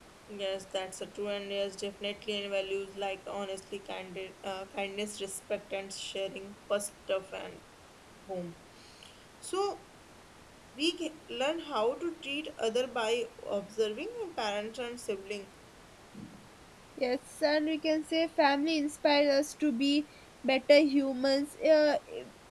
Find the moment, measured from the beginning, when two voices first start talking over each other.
none

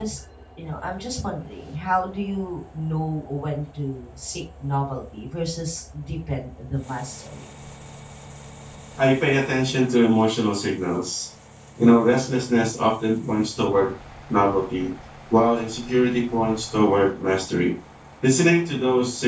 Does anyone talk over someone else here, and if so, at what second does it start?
none

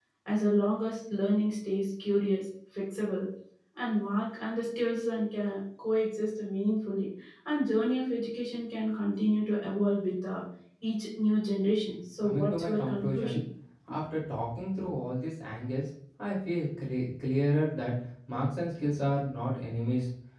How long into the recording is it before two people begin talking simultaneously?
12.2 s

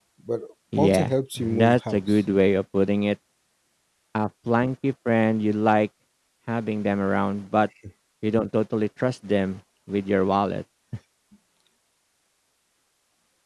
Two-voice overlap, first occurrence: 0.8 s

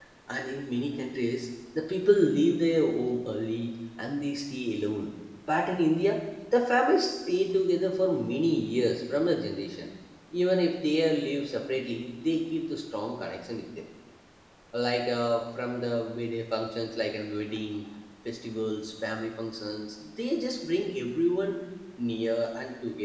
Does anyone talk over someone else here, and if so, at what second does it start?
none

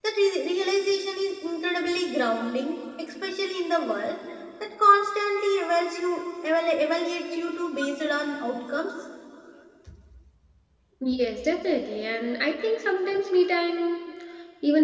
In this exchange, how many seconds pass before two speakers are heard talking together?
none

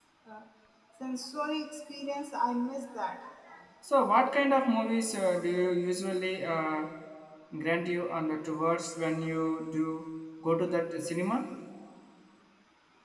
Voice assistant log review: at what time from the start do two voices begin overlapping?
none

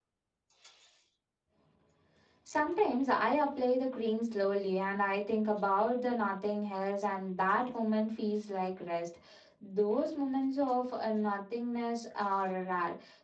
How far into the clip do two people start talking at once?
none

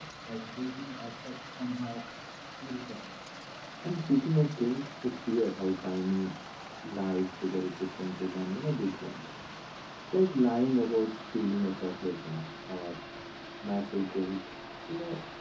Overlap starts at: none

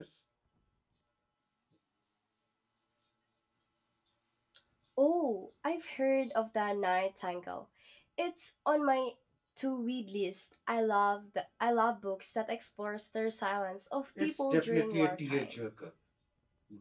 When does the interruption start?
14.2 s

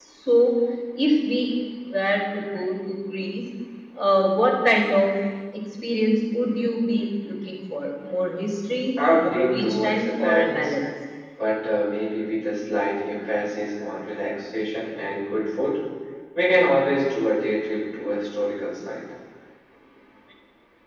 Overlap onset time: 9.0 s

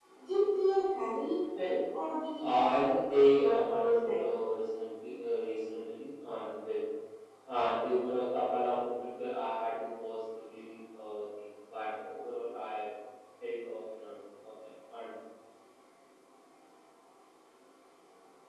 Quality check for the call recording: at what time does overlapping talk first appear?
2.4 s

